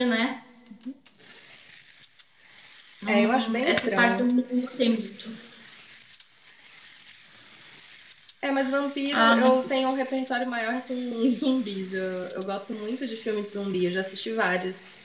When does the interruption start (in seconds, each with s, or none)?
3.1 s